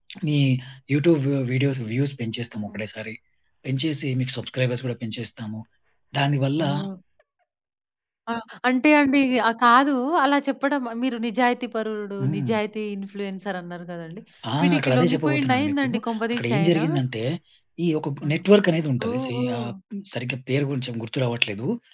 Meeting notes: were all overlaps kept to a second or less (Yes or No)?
No